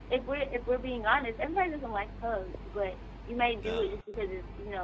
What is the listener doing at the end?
listening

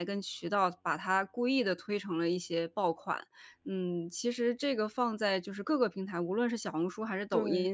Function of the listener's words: listening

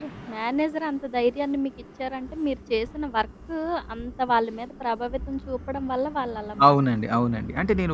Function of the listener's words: taking over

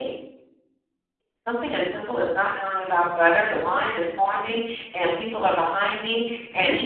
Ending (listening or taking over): listening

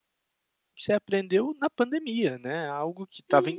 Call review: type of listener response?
listening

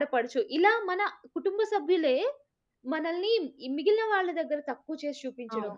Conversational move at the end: listening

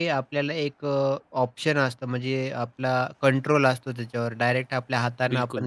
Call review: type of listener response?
listening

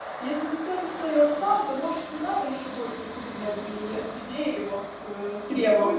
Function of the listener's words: taking over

